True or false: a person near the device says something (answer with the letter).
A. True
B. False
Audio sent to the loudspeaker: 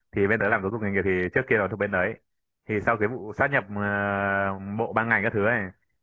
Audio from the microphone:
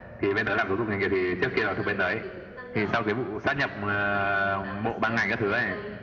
A